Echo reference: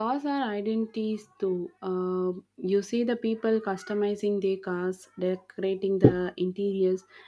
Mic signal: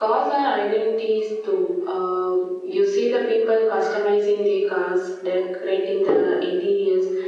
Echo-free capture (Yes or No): No